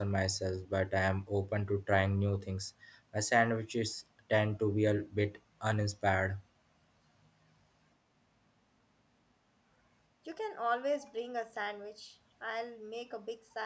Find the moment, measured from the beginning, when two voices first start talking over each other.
none

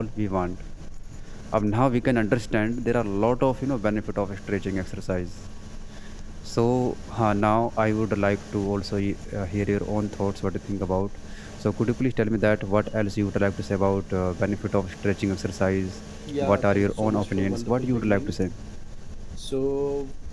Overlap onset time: 16.4 s

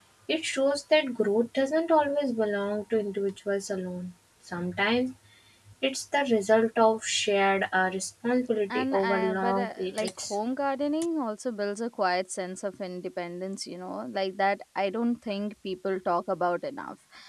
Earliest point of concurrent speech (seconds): 8.7 s

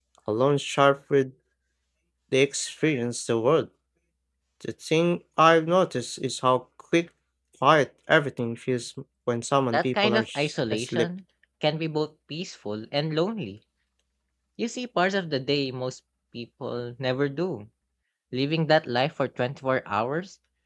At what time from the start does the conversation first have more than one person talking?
9.7 s

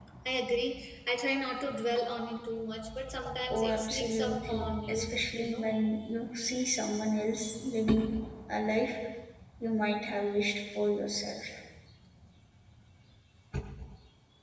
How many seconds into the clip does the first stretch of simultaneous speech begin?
3.5 s

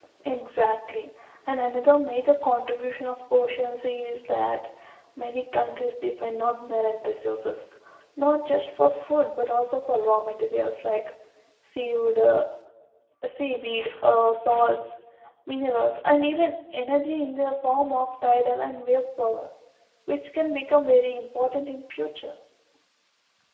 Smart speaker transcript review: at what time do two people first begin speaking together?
none

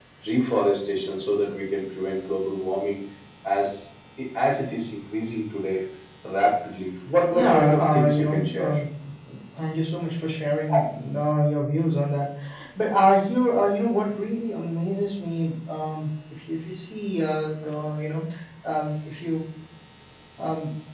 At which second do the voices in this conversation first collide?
7.3 s

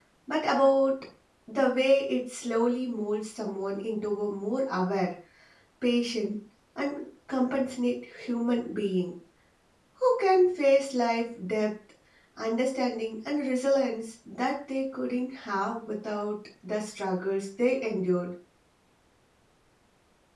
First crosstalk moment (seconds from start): none

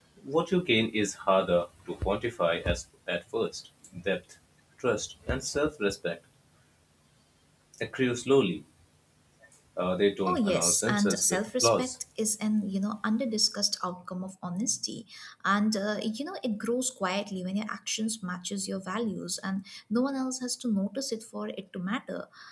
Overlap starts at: 10.3 s

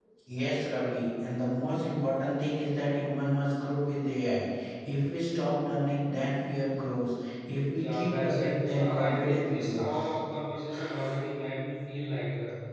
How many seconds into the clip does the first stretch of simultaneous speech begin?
7.7 s

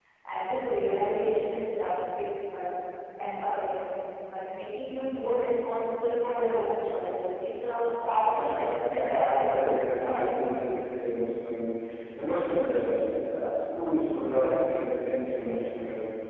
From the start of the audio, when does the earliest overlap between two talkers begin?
8.3 s

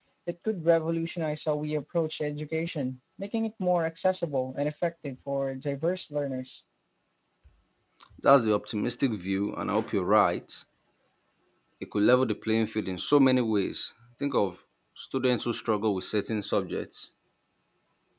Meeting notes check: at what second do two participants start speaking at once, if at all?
none

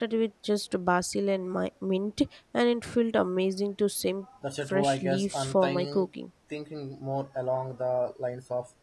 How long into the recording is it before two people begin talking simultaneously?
4.4 s

